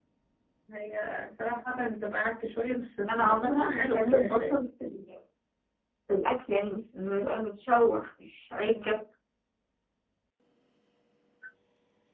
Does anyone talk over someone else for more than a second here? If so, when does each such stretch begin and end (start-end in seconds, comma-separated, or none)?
3.1-4.5